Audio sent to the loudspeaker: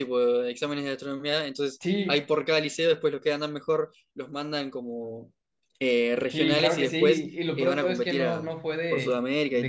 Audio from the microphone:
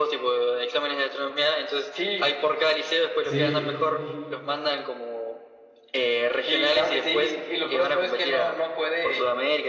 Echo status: present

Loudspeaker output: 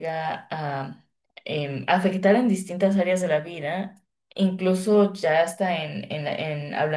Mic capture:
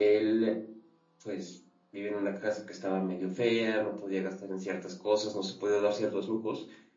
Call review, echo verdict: none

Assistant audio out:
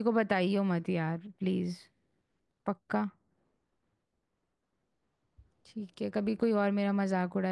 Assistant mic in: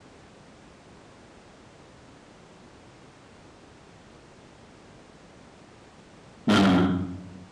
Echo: none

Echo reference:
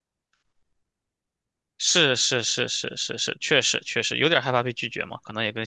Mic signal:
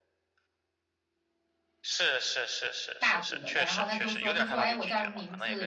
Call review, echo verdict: present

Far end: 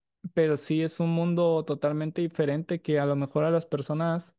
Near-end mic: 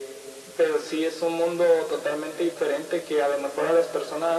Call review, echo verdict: present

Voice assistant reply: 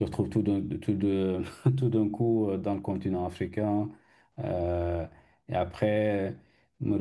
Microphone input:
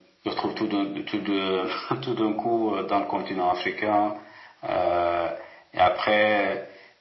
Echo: present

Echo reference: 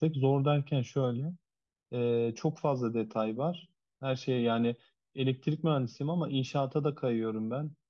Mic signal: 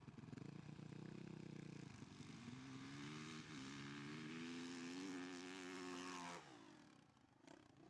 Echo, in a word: none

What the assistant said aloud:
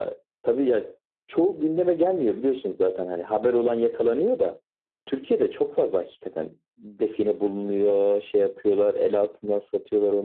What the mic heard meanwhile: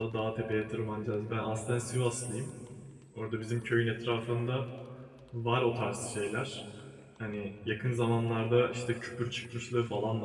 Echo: none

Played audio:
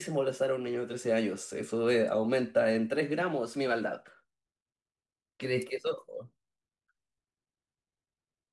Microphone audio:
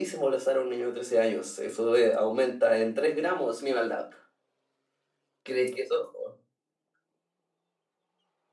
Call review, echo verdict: present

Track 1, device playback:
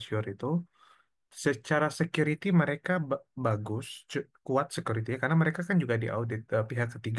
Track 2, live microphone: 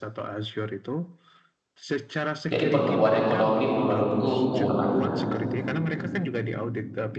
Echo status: present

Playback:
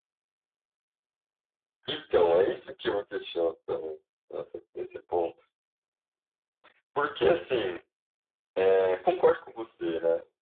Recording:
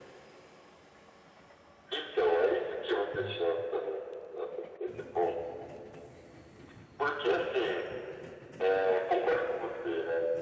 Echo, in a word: present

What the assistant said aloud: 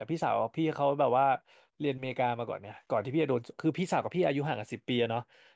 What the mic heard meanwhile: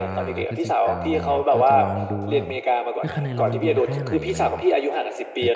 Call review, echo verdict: present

